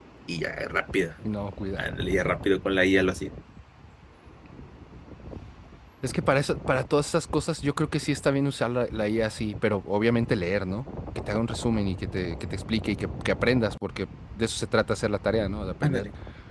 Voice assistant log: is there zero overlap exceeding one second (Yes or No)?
Yes